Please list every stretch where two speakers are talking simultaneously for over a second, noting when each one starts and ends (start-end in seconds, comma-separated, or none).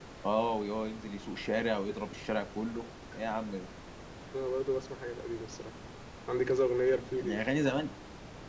none